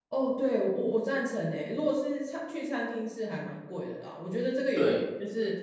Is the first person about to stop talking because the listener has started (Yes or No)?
No